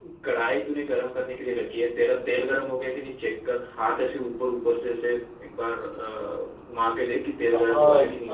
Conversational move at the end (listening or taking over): taking over